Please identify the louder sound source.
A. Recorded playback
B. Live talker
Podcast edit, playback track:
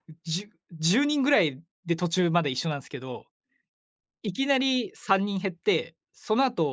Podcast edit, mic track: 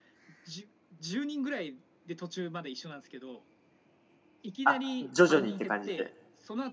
B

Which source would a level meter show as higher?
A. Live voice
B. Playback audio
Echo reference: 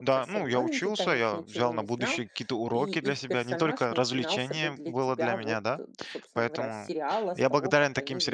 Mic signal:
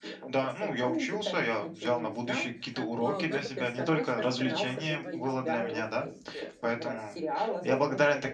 B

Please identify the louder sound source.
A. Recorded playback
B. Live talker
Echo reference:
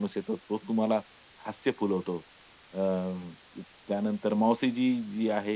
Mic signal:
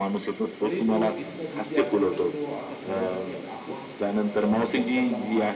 A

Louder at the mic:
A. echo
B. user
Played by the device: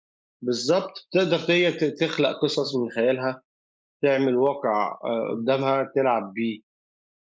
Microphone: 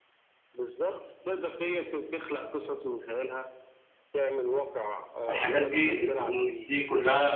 B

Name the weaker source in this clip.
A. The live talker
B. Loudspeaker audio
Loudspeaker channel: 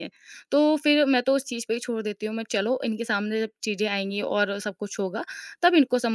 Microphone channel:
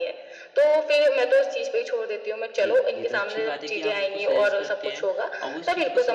A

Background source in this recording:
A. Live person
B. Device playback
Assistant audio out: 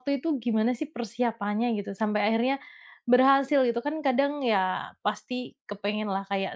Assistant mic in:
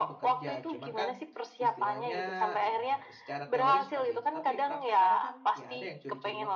A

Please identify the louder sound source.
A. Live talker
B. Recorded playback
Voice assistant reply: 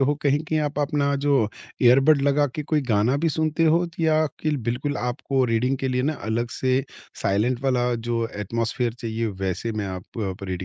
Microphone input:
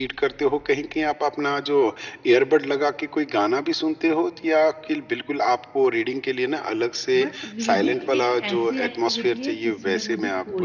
B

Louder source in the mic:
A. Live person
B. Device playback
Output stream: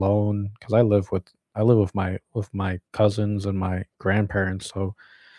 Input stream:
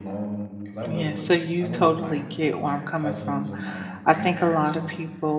A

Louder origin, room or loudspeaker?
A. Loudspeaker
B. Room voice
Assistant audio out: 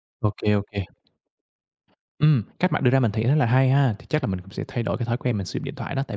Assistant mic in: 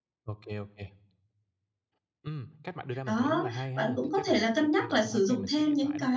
B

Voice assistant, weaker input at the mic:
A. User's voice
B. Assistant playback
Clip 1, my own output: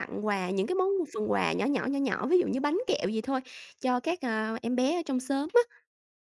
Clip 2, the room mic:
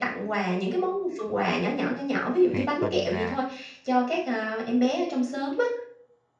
A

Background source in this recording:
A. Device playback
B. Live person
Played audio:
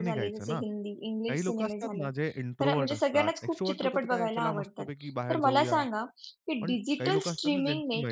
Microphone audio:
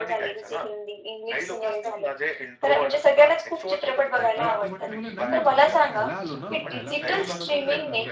B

